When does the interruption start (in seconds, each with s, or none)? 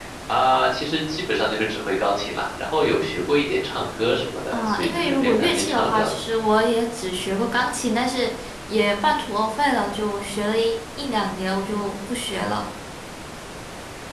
4.5 s